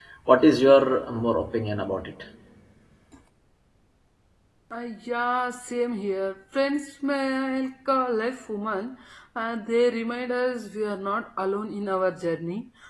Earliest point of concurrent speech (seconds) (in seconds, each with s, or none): none